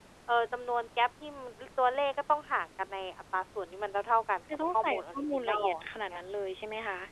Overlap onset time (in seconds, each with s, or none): 4.7 s